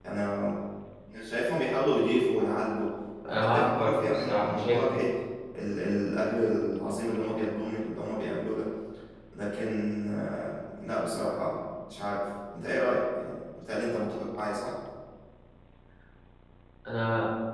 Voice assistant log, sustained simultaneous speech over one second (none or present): present